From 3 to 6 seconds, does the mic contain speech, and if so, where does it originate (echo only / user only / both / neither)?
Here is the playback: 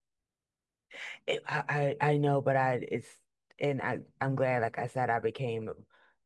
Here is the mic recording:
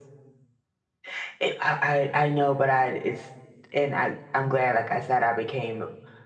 echo only